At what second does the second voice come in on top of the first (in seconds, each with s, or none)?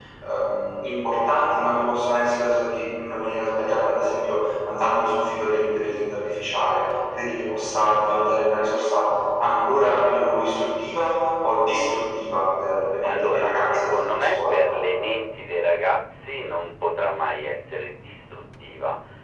13.0 s